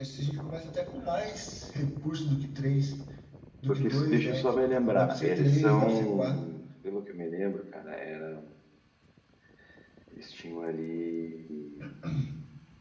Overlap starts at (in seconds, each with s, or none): 3.7 s